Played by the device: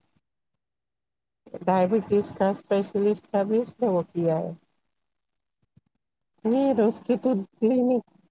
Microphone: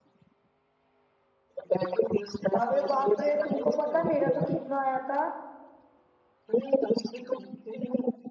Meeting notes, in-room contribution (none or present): present